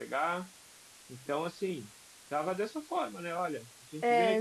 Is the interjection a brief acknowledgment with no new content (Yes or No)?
Yes